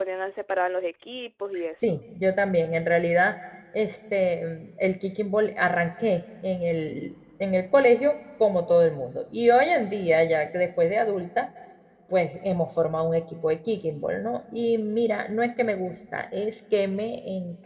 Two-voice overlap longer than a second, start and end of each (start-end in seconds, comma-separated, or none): none